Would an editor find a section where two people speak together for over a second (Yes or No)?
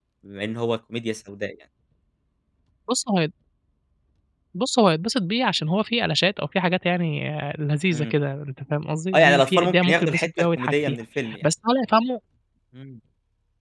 Yes